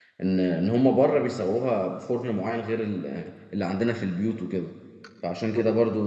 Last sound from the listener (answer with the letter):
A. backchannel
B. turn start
A